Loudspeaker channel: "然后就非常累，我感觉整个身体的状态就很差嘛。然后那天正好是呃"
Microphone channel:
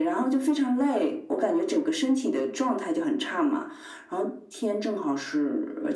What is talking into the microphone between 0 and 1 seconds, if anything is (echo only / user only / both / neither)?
echo only